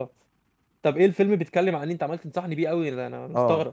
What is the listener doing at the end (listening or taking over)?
taking over